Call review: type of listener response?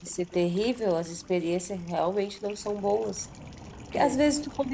listening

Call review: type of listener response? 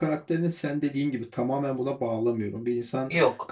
listening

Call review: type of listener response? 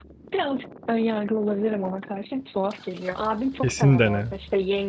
listening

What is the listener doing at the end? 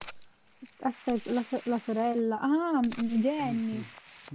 taking over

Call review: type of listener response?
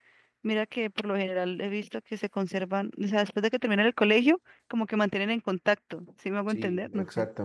taking over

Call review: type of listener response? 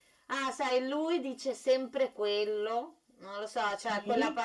listening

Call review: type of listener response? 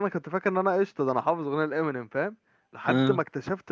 listening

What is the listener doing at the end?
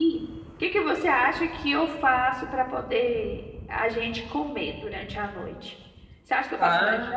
listening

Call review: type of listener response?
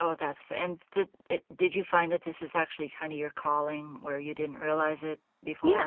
taking over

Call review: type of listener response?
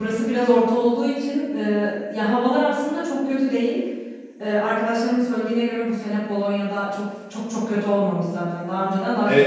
taking over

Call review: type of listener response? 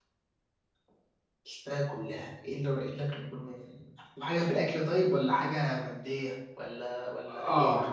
taking over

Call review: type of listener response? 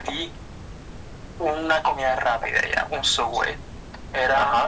listening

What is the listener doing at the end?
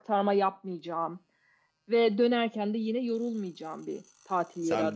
taking over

